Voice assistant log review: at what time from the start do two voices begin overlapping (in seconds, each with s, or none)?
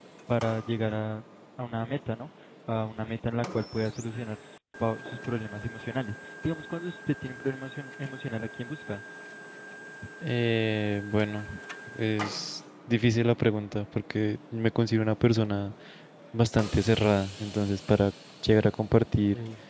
none